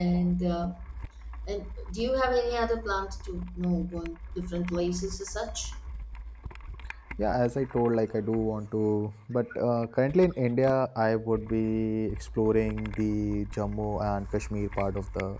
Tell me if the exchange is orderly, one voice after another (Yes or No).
Yes